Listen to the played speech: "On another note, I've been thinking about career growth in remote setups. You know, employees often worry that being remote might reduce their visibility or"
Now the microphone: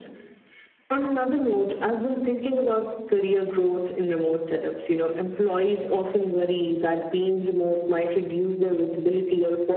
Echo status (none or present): present